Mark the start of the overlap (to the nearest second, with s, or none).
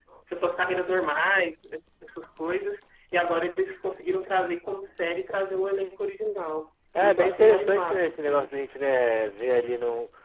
7 s